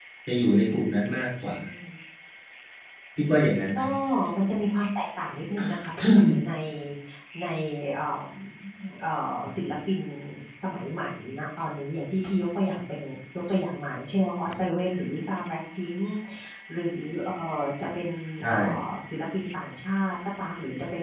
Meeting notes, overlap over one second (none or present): none